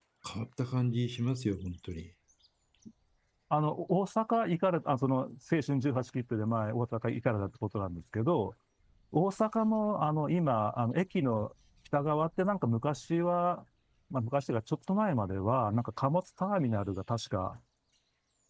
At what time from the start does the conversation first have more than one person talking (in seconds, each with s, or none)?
none